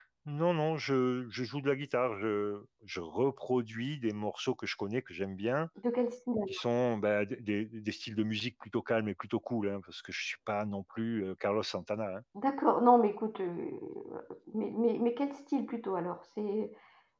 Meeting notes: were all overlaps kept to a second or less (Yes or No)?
Yes